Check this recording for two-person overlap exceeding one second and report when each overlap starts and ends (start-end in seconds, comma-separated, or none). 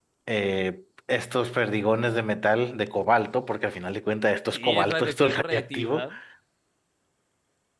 4.5-6.0